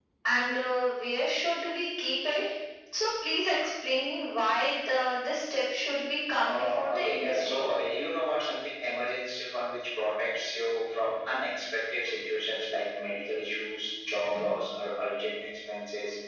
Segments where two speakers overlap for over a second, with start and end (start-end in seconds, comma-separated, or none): 6.5-7.7